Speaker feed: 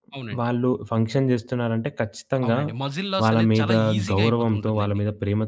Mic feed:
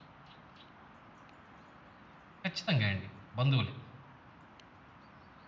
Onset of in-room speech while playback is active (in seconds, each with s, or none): 2.4 s